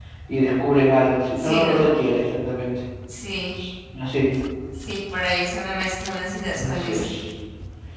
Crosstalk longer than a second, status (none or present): none